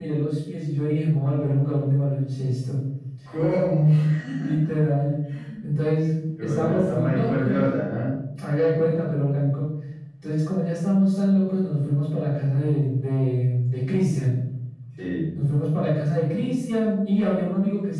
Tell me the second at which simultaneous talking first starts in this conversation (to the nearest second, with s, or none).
6 s